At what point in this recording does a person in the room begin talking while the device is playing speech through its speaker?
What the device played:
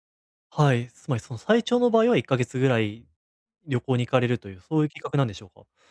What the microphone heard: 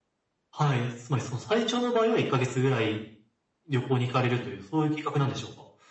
none

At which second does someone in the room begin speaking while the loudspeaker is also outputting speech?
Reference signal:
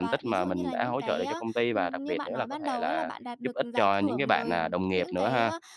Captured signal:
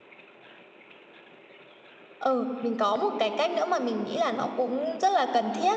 2 s

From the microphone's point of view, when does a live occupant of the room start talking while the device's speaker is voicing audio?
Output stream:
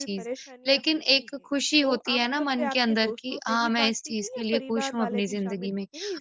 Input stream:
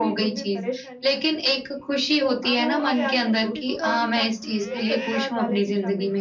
3 s

